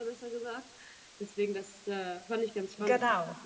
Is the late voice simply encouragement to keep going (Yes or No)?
Yes